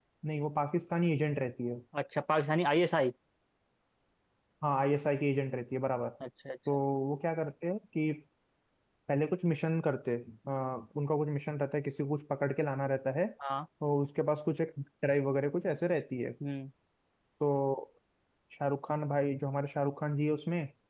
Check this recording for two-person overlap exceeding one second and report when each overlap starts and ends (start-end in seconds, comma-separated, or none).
none